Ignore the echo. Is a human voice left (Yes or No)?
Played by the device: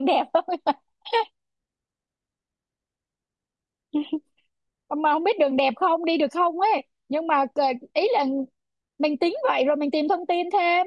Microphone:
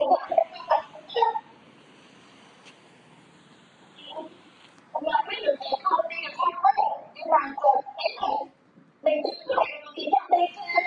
No